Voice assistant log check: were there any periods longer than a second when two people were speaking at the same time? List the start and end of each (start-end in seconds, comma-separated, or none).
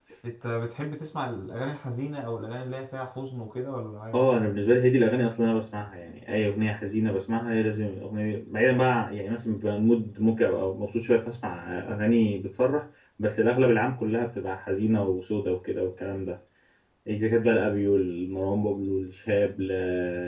none